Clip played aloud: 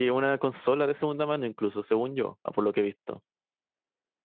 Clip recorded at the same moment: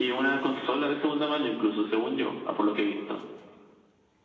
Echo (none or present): present